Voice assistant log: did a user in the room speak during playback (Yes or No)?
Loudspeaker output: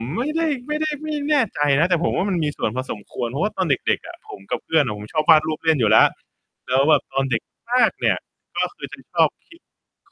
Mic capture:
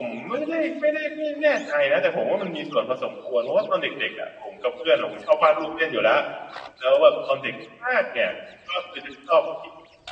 No